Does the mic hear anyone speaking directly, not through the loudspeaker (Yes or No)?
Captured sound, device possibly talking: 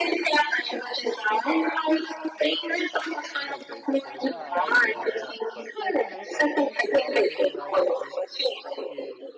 Yes